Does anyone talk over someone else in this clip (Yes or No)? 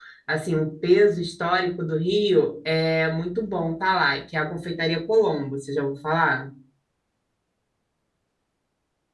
No